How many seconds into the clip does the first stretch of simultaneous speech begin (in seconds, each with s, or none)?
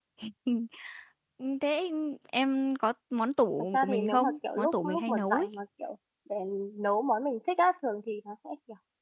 3.7 s